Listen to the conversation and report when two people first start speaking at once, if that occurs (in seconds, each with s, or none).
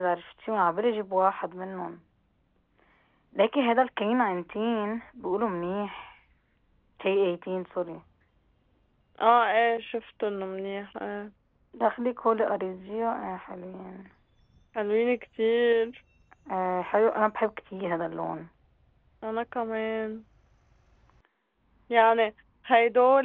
none